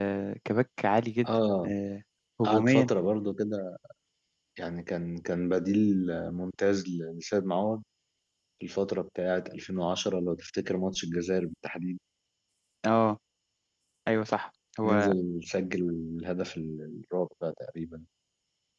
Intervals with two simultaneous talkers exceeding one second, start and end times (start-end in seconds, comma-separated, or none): none